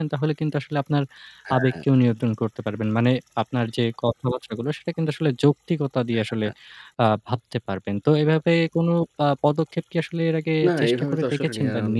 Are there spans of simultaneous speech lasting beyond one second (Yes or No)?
Yes